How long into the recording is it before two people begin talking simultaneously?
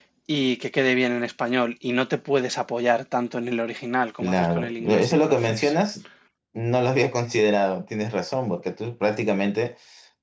4.2 s

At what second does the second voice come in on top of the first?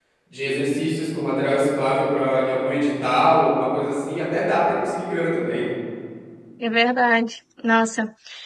none

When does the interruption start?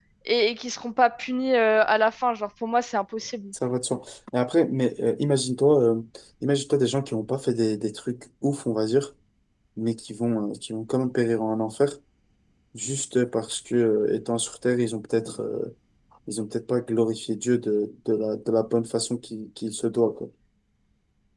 none

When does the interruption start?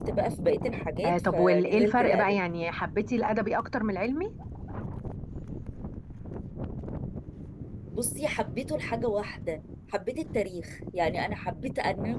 1.0 s

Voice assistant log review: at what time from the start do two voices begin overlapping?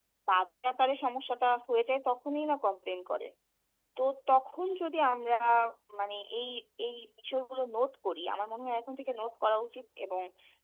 none

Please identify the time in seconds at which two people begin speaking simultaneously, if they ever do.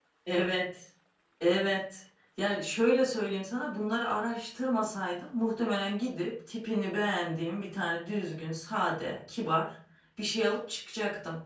none

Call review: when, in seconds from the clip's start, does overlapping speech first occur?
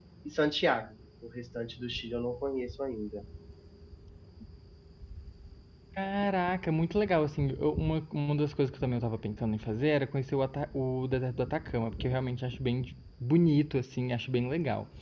none

